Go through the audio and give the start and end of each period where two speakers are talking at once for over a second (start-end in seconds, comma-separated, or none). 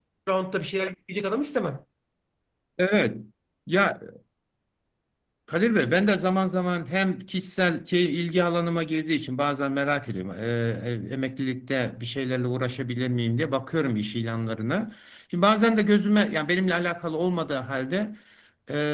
none